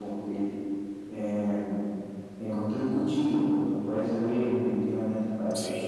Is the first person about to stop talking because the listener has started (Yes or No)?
Yes